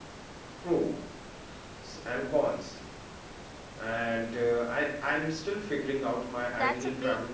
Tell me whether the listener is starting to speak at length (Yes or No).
Yes